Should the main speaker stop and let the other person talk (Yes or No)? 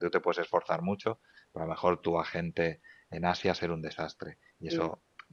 No